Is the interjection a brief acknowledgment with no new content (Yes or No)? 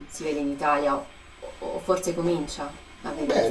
No